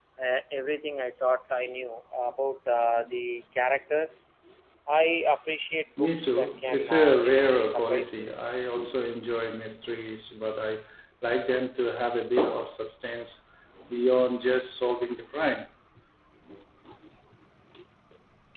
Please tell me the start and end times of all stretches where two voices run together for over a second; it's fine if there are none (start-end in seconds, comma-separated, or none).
6.0-8.3